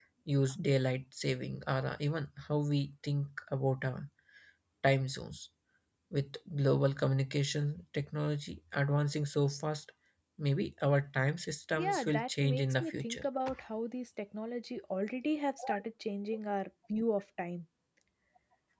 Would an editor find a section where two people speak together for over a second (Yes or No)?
Yes